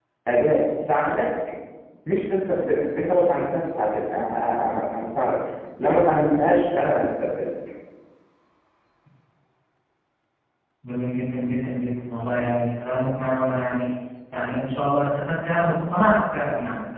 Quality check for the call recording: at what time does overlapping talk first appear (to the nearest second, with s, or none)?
none